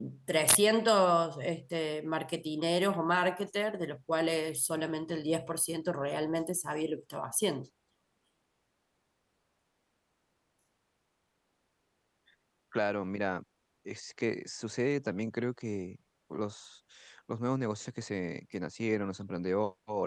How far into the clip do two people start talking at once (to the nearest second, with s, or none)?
none